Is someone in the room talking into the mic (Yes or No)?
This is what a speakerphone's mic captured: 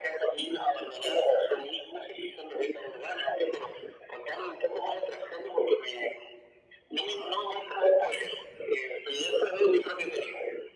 No